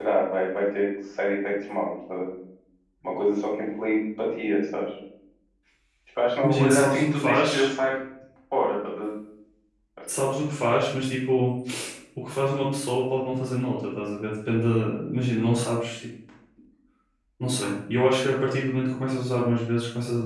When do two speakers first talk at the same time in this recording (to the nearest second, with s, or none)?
6 s